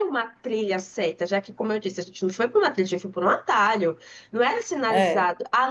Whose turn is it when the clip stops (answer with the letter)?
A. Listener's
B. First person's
B